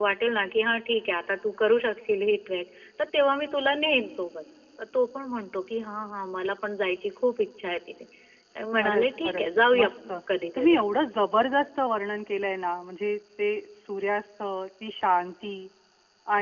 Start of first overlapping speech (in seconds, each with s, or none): 8.8 s